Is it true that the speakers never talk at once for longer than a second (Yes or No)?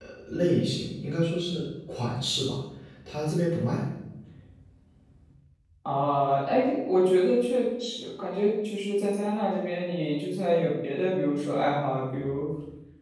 Yes